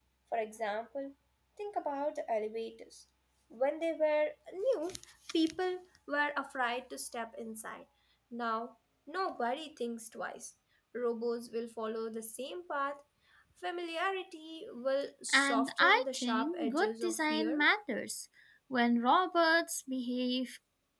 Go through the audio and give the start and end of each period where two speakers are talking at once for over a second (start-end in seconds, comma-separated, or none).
15.3-17.6